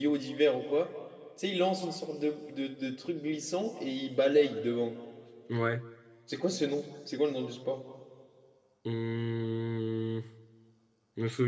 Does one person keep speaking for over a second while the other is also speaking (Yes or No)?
No